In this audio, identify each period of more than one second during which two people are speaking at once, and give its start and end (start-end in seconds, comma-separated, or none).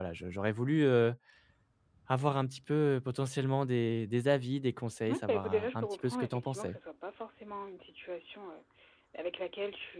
5.1-6.8